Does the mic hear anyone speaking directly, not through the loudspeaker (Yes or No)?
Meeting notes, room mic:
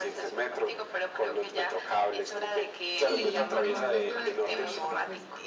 Yes